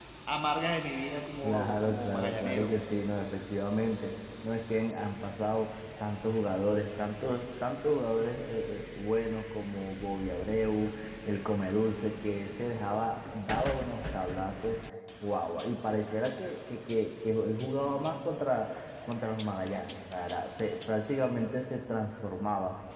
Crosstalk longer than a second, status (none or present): present